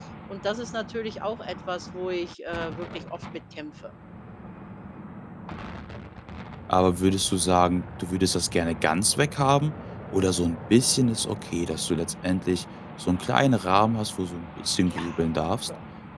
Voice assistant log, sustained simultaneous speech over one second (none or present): none